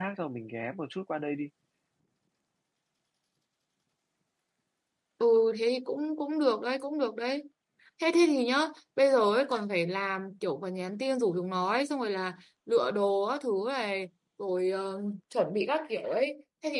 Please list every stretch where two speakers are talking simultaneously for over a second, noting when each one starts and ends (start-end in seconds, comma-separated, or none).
none